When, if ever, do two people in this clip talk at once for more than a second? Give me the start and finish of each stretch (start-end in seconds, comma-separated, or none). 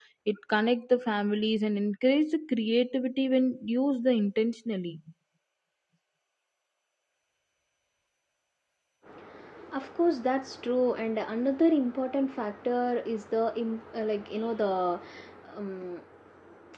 none